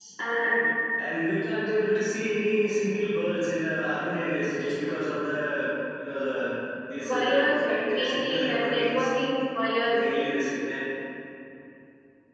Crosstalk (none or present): present